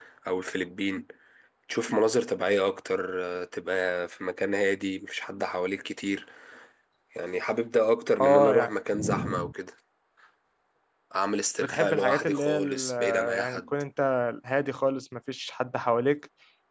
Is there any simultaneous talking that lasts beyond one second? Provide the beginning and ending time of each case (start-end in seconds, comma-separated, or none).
11.6-13.6